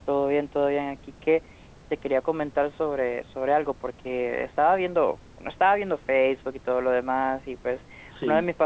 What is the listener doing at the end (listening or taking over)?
listening